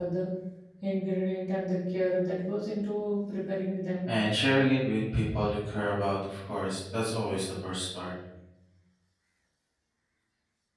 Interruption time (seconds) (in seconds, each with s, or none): none